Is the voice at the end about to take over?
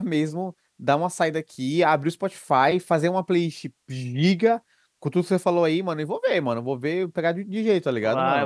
Yes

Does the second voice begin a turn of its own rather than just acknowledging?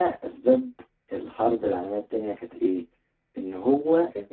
No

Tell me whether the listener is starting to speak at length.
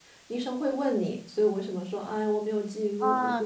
Yes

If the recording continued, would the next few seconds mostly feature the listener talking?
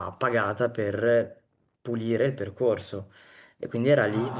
No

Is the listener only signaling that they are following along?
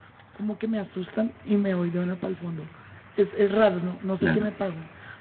Yes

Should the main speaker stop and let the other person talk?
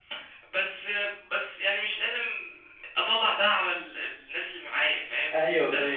No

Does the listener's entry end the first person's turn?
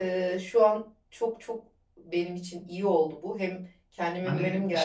Yes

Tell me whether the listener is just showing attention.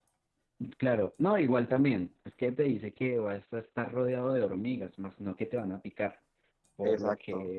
Yes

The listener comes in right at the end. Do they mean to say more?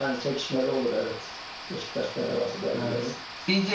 Yes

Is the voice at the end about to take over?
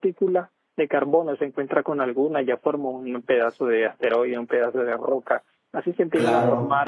No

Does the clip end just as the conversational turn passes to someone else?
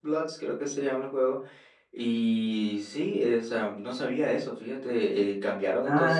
Yes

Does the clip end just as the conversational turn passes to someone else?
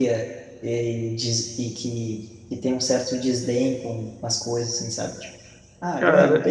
Yes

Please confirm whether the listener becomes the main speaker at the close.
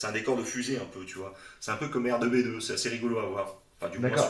Yes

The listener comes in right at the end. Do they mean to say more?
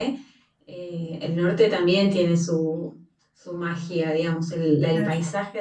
No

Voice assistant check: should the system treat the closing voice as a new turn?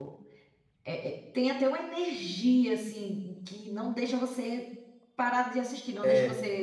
No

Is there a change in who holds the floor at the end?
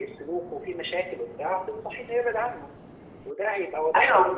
No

